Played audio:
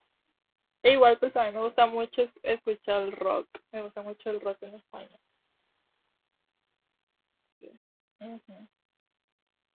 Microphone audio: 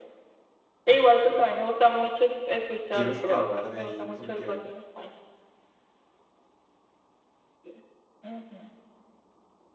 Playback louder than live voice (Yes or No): Yes